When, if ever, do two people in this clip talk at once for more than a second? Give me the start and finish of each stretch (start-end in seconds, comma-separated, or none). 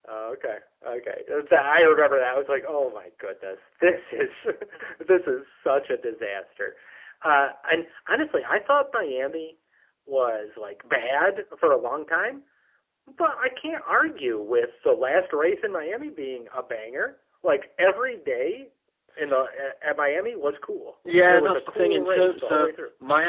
21.3-22.7